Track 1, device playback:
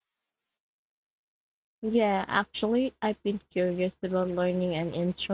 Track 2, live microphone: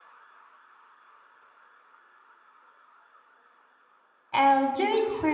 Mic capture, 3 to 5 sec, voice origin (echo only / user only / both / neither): user only